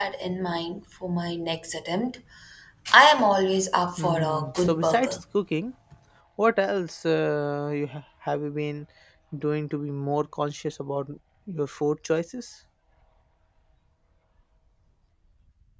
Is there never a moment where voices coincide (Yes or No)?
No